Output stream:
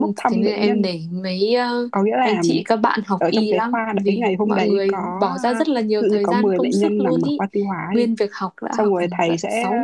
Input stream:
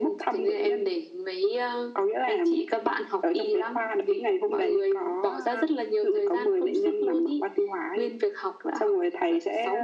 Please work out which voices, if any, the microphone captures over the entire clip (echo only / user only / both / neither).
echo only